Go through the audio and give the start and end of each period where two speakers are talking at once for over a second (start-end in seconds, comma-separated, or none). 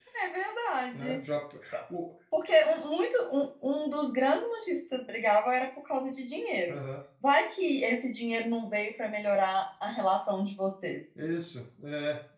none